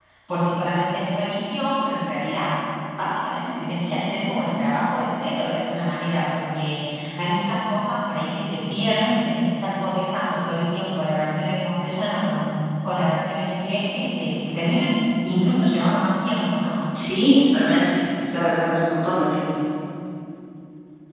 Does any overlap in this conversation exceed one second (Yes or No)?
No